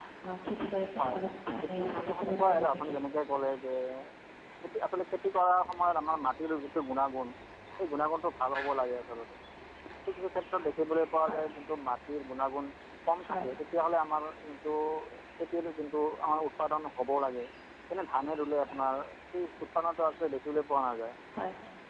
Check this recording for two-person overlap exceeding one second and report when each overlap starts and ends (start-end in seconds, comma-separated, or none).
1.6-3.0